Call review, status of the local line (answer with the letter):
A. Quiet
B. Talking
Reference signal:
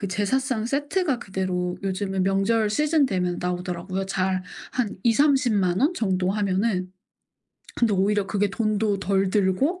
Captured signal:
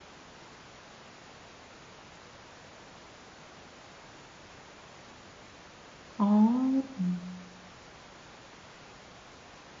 B